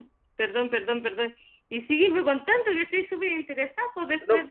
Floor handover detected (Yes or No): No